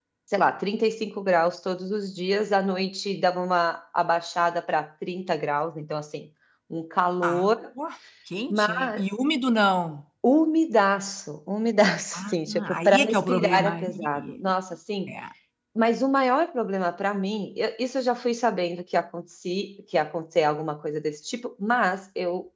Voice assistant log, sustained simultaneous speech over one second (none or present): present